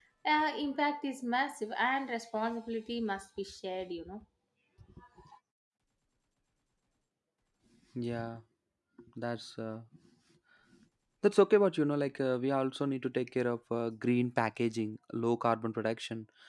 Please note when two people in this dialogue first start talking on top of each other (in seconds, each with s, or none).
none